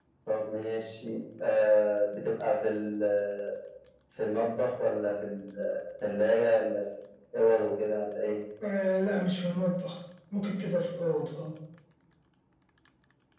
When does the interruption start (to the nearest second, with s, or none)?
none